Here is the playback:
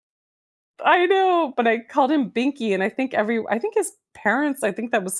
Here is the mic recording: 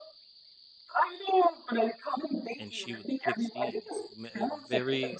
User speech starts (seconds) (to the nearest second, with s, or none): 3 s